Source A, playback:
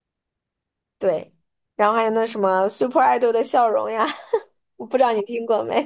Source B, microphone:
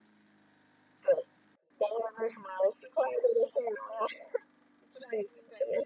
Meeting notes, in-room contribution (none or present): none